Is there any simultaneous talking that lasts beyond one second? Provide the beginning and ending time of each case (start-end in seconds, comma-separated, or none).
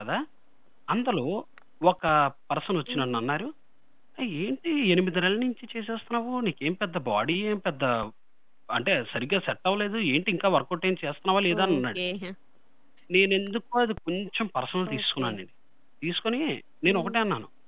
none